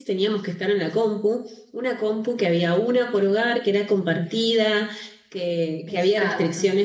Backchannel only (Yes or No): Yes